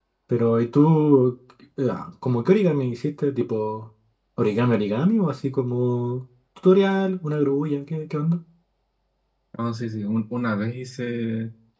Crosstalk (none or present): none